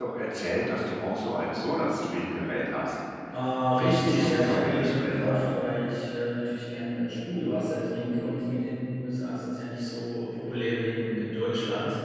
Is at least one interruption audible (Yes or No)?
Yes